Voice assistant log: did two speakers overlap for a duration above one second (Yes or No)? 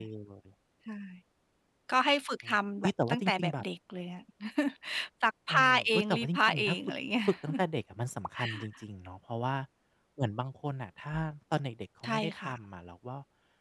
Yes